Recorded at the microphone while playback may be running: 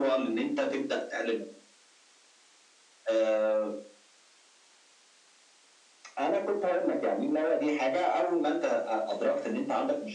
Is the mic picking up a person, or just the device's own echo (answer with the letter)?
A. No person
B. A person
A